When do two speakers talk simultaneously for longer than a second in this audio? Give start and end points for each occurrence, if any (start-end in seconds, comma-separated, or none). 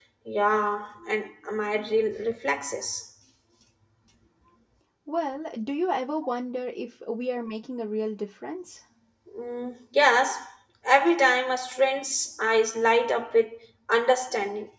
none